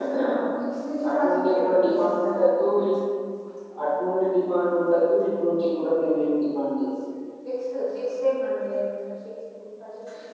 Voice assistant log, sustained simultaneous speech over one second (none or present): present